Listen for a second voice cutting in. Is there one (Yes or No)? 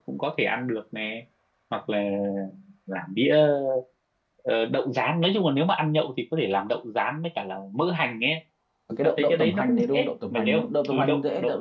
Yes